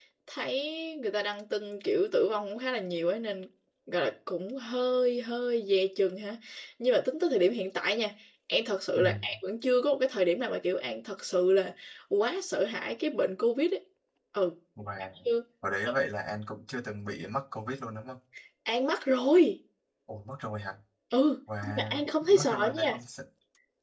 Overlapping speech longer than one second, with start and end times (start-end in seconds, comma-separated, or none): 21.6-23.0